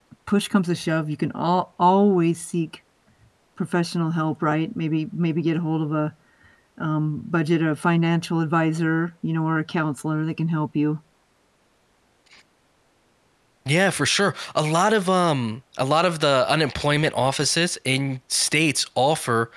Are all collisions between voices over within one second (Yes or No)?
Yes